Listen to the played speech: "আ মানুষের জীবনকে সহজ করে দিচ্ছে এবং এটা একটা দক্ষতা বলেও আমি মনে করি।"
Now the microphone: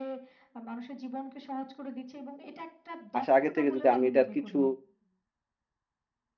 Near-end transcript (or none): আসার আগে থেকে যদি আমি এটার কিছু